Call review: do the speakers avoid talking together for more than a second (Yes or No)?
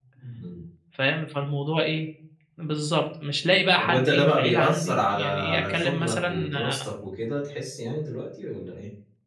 No